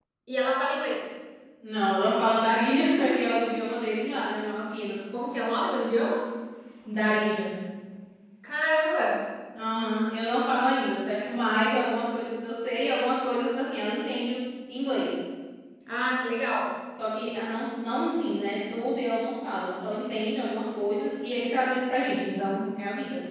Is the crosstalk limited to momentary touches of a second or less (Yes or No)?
Yes